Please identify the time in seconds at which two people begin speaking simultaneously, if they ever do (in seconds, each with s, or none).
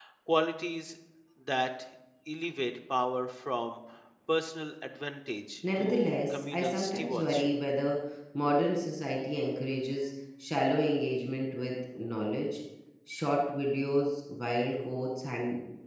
5.6 s